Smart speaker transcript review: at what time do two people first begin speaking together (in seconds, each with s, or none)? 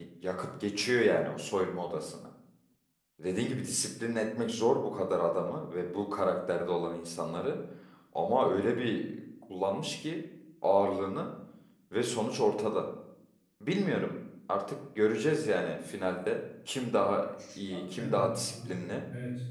17.7 s